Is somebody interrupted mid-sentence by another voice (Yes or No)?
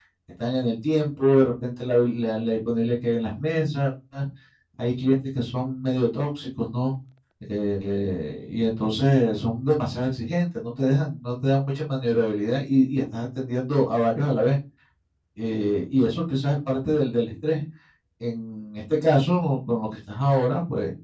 No